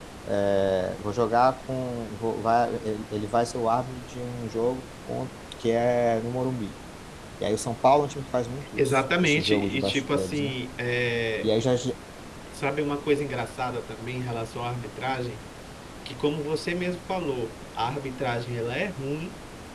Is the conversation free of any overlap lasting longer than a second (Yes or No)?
No